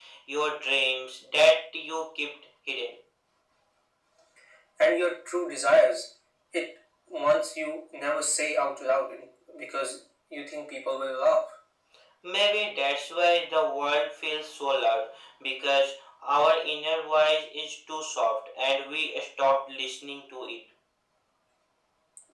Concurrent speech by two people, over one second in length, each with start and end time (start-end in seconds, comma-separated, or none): none